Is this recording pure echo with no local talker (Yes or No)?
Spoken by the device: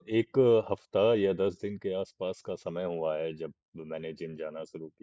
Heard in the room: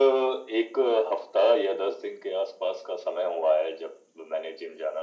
Yes